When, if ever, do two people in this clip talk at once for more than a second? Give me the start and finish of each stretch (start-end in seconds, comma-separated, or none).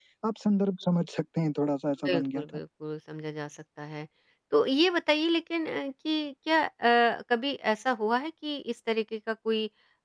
none